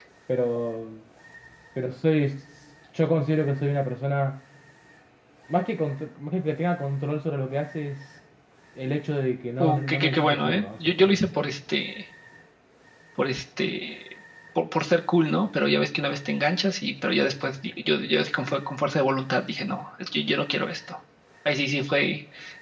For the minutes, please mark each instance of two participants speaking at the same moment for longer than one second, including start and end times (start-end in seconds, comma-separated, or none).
9.6-11.2